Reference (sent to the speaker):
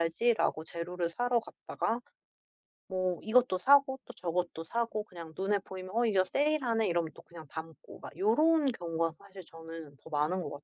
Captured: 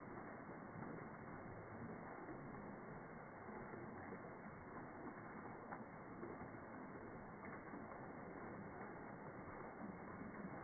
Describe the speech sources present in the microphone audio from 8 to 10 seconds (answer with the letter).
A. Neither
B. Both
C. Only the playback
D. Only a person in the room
A